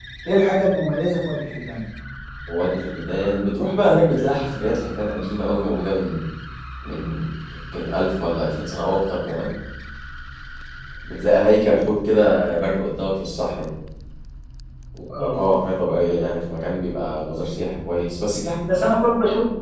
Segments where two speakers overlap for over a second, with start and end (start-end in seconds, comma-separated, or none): none